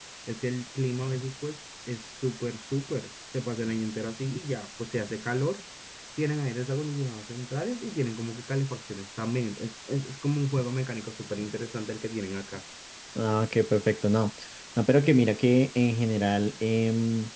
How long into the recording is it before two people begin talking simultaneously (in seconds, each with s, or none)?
none